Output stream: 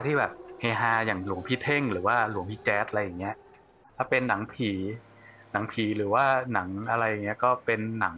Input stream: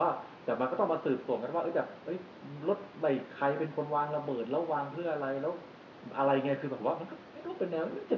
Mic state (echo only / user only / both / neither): user only